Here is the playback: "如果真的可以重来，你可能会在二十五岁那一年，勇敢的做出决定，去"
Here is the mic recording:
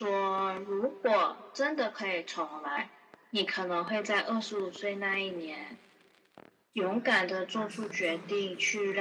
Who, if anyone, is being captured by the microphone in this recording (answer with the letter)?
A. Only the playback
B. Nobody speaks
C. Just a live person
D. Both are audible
D